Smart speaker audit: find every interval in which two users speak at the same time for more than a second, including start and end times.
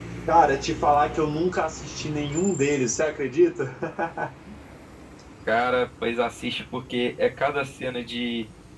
none

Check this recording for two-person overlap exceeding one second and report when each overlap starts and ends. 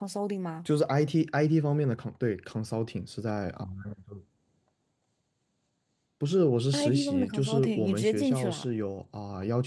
6.7-8.6

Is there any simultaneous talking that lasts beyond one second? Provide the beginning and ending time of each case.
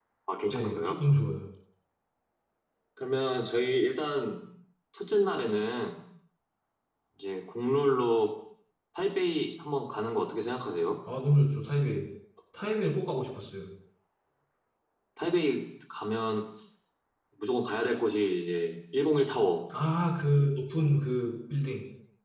none

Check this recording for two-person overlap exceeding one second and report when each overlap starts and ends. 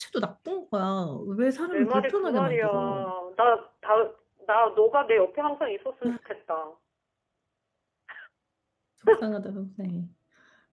1.7-3.1

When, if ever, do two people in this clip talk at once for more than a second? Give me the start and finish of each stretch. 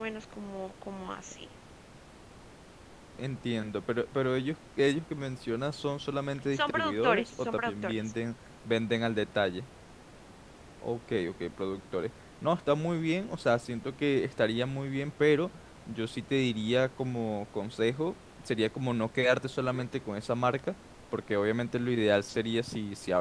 6.5-8.0

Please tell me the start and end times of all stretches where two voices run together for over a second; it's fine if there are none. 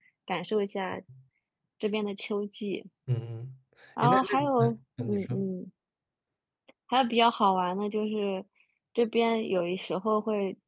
4.0-5.4

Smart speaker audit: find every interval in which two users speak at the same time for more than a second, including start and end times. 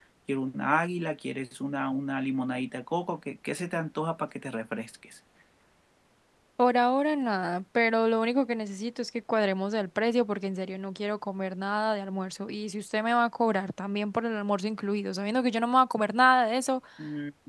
none

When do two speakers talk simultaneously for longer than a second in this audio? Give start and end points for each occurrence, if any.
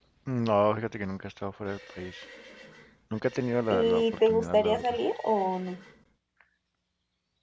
3.7-5.0

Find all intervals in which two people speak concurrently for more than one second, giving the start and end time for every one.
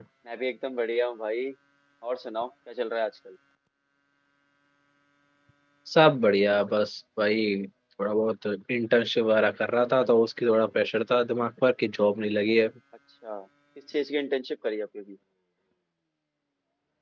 none

